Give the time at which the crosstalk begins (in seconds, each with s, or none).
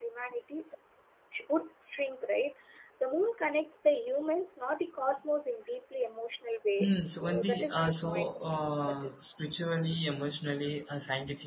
6.8 s